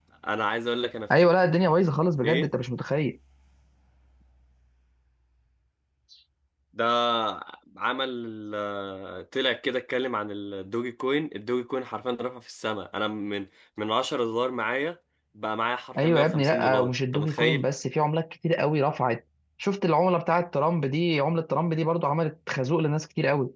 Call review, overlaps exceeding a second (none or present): present